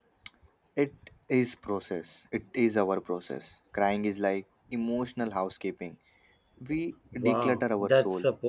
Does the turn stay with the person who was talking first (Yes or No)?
No